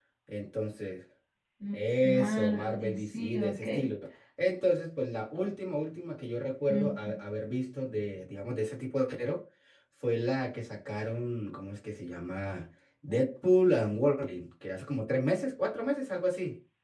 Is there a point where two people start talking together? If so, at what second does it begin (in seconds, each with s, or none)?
2.2 s